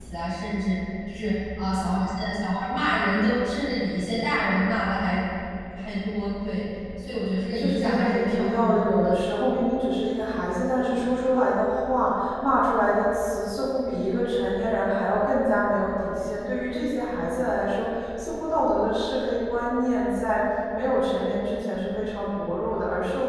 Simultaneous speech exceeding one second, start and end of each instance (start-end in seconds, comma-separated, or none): 7.6-9.2